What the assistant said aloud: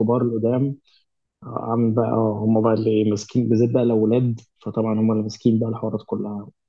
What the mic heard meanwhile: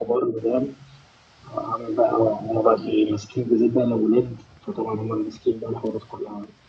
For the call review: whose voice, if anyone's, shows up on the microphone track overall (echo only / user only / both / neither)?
echo only